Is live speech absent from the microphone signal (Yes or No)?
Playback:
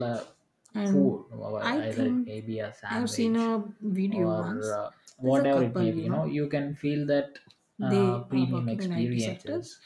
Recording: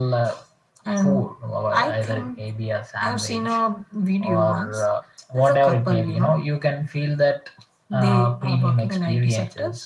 Yes